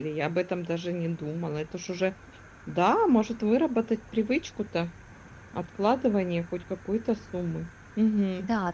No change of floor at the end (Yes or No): No